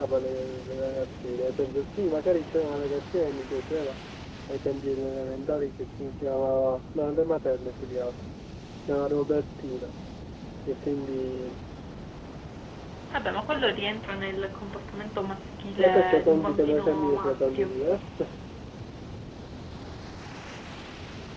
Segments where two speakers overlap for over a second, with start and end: 15.8-17.7

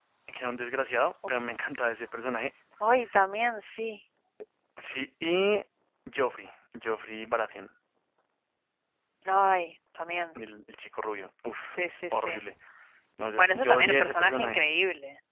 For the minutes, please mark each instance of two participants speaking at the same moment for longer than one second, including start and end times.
13.4-14.7

